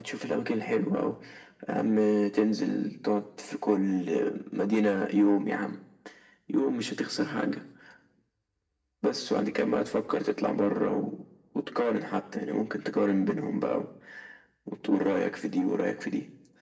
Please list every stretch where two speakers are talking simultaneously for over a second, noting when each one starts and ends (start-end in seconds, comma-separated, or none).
none